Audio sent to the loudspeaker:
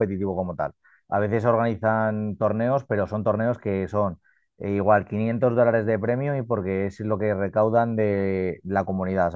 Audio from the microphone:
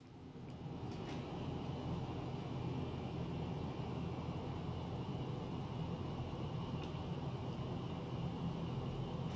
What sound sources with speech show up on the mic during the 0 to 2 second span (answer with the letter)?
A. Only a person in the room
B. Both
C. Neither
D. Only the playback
C